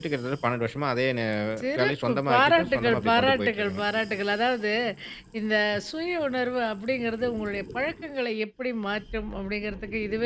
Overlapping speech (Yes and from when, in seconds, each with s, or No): Yes, from 1.8 s